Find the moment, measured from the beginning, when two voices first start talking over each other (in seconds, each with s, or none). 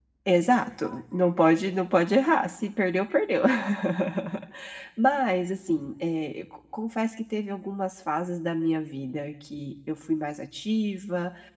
none